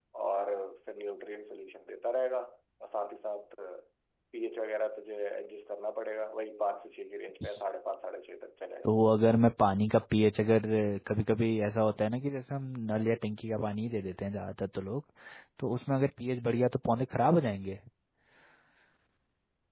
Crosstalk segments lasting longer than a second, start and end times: none

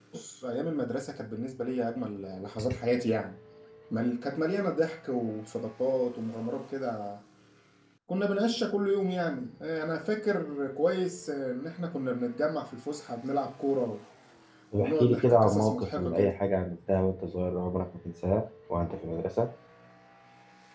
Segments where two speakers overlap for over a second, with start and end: 14.8-16.4

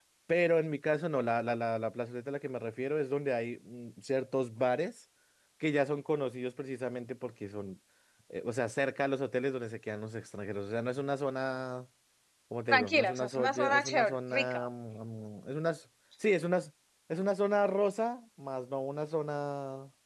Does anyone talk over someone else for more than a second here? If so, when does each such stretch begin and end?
12.7-14.6

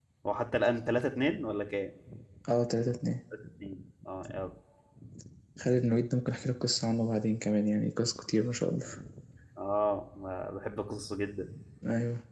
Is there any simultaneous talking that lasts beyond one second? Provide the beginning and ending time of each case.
none

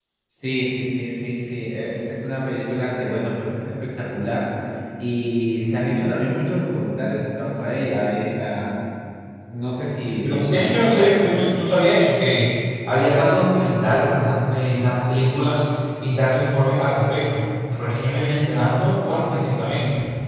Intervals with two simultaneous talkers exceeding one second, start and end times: 10.2-11.5

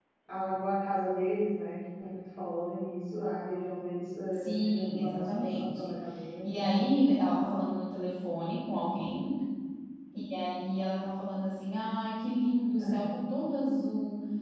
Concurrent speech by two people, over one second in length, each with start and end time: 4.3-5.9

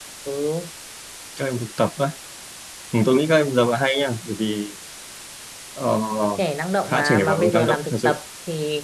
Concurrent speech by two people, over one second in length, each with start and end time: 6.9-8.2

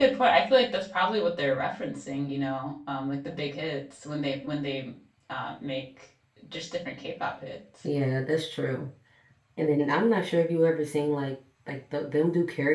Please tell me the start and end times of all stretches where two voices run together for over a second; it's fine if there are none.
none

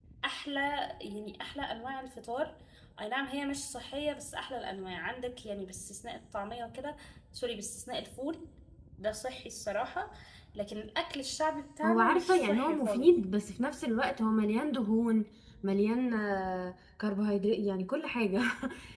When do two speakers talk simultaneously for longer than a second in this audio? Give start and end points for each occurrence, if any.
11.8-13.1

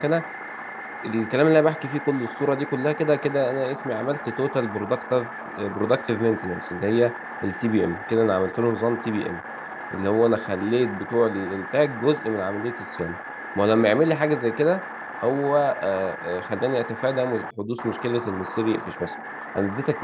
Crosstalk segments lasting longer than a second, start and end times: none

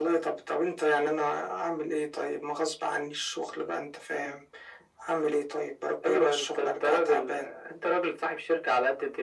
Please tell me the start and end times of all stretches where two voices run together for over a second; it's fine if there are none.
6.0-7.5

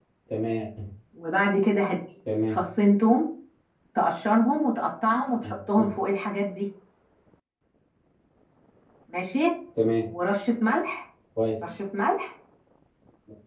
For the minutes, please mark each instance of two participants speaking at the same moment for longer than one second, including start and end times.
none

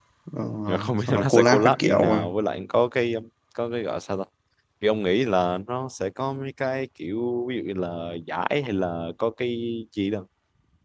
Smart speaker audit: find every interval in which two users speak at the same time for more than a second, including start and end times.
0.7-2.2

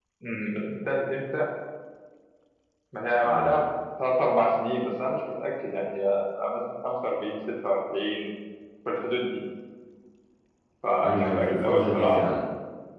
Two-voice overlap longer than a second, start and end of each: 11.0-12.2

